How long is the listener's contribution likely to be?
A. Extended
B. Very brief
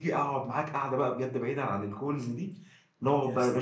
B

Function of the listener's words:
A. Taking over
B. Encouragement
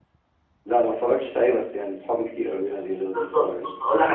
A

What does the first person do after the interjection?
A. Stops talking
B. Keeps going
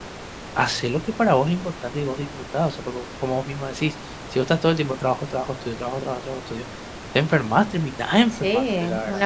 A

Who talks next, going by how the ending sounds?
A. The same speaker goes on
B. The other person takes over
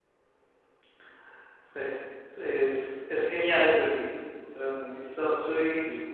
A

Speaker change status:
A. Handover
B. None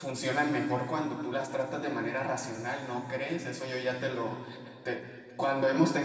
B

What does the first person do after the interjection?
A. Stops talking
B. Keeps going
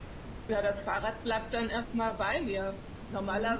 B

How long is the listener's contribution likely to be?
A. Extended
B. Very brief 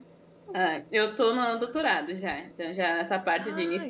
B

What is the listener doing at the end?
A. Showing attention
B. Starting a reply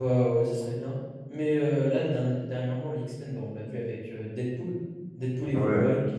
B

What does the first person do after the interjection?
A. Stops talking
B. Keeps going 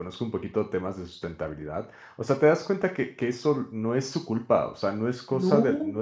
B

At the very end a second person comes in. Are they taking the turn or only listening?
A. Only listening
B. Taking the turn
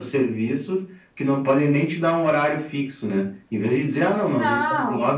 A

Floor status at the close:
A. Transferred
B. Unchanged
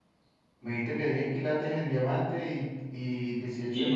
A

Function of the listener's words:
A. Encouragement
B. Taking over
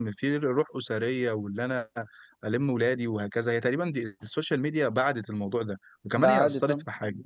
A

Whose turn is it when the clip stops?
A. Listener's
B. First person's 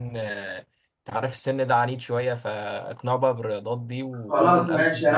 A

